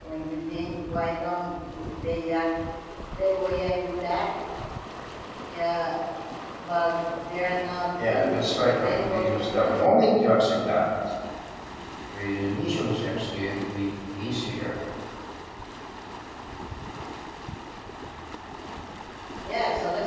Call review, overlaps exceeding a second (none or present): present